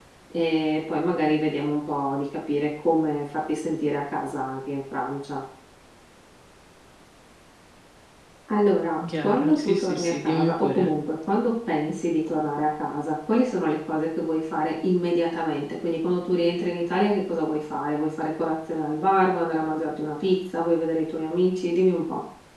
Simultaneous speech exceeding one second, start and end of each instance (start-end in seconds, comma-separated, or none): 9.2-10.9